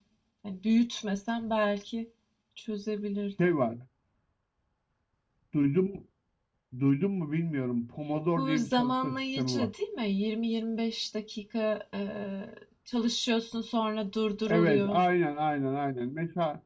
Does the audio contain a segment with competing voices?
Yes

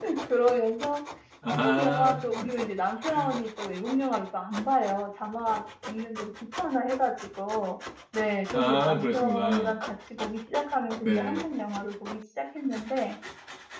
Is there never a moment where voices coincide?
No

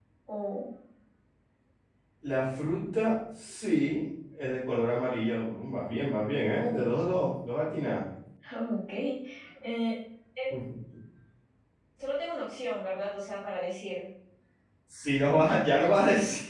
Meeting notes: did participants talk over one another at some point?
No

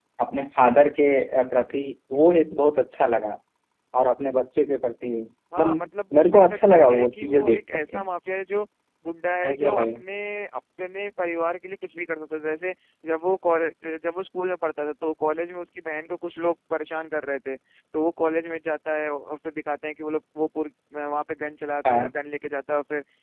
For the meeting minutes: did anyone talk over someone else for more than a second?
Yes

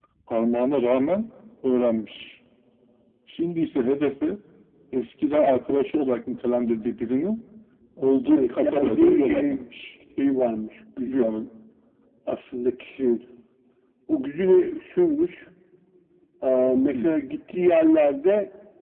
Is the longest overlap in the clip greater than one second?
Yes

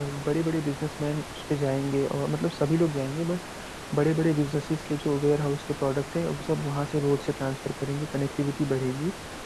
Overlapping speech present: No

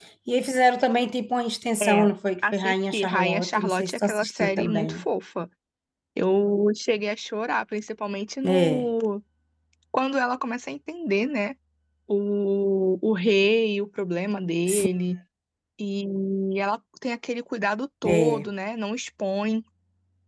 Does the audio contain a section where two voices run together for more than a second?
Yes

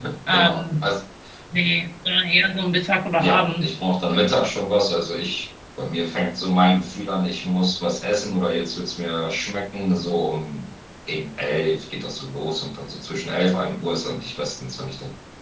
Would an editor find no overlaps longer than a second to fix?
Yes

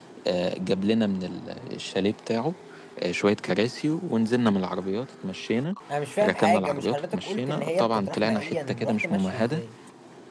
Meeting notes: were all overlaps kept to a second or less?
No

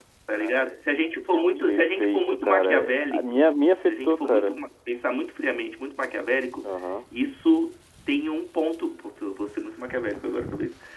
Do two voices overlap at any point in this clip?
Yes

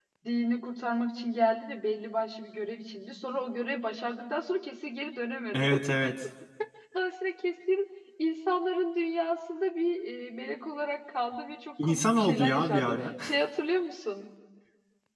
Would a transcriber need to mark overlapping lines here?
Yes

